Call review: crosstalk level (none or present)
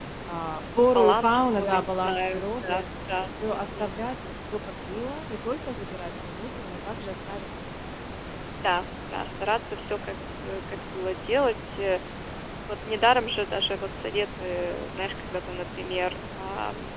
present